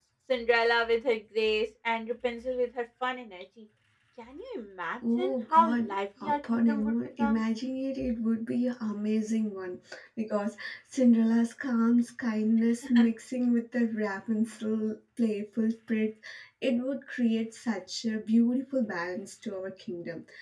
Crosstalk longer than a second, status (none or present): present